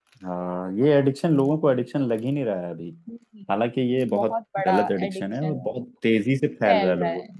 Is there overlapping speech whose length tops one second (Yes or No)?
Yes